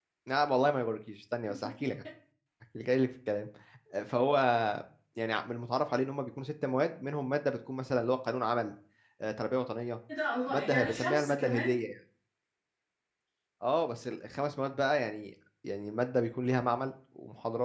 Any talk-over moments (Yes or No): Yes